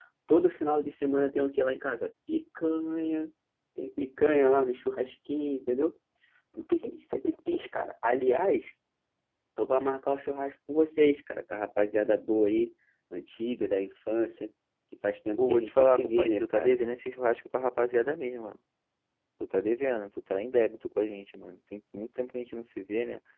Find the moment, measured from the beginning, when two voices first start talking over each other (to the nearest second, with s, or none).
15 s